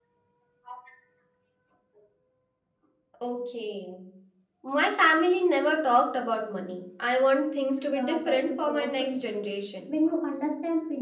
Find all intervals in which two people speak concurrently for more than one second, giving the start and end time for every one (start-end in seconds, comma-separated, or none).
7.9-9.5